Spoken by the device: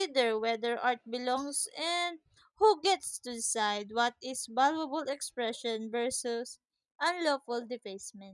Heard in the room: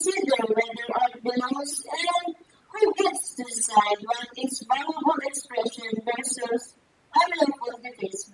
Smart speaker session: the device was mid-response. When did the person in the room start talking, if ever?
none

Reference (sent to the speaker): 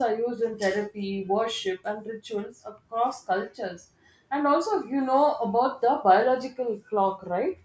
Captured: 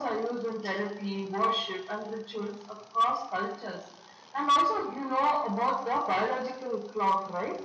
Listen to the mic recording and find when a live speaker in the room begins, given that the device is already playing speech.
none

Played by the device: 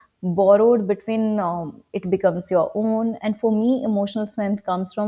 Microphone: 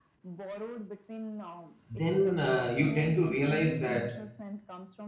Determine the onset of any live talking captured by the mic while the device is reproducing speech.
1.9 s

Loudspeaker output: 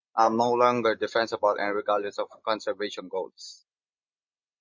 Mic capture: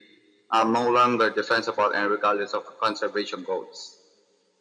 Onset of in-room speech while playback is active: none

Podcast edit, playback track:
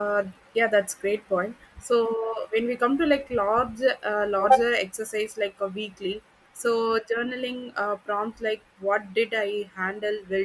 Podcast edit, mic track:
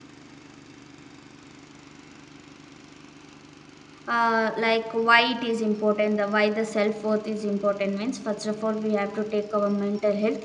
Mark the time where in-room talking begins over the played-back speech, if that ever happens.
4.1 s

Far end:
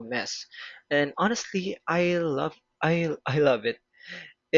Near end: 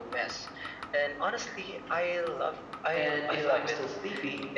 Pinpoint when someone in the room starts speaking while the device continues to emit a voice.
2.9 s

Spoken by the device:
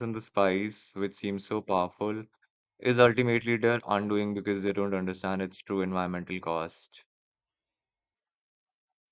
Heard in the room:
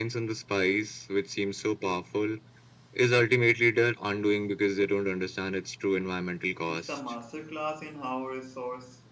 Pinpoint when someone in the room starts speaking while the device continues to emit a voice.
6.7 s

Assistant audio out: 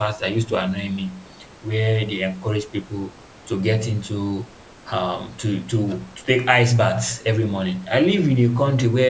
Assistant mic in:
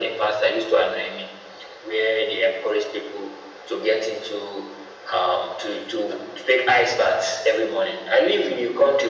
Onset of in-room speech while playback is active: none

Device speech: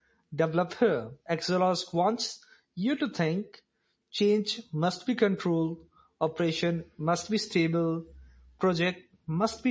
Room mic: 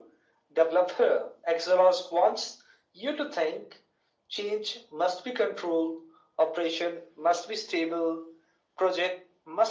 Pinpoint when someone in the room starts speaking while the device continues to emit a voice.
none

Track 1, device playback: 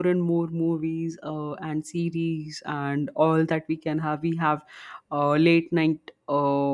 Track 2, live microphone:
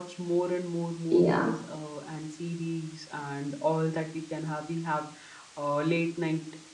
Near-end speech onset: 1.1 s

